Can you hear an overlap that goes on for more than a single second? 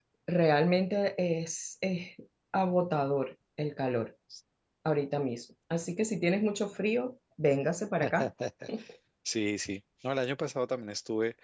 No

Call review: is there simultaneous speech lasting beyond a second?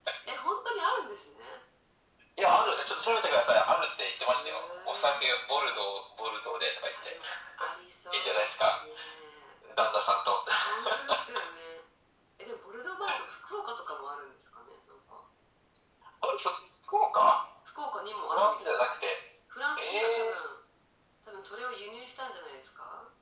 Yes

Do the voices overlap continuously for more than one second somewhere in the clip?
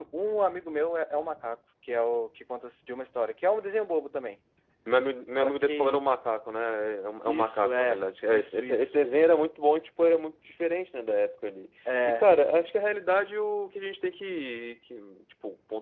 Yes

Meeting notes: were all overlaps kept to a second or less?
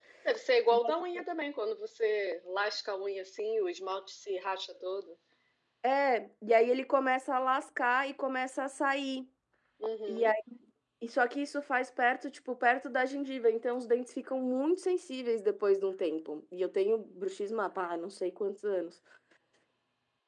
Yes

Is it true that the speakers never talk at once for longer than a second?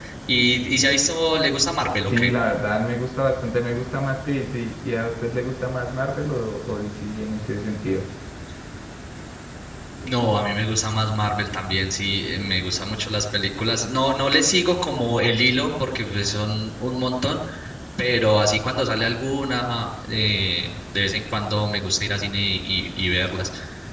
Yes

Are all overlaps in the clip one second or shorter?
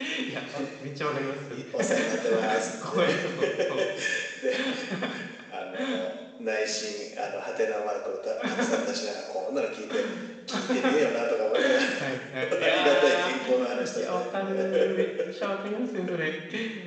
No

